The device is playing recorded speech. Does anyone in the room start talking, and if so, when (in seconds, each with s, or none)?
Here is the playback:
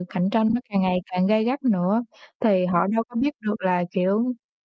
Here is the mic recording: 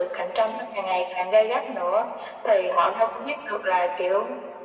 none